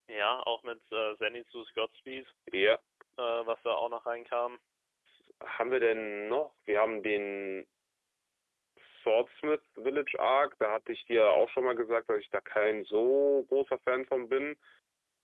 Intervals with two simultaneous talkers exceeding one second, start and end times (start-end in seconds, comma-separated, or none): none